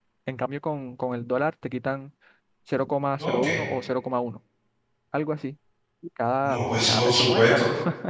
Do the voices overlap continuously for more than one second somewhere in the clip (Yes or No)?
Yes